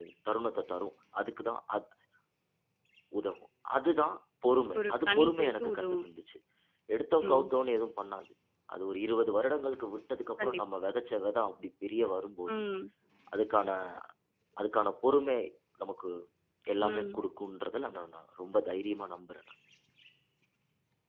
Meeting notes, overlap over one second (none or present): present